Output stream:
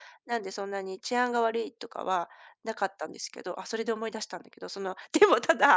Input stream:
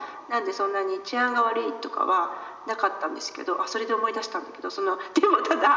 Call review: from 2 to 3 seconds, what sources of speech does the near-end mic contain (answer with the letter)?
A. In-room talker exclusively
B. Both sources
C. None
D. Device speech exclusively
D